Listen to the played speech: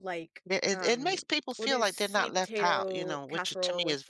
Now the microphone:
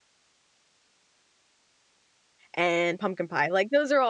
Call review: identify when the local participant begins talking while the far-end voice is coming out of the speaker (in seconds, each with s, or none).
2.5 s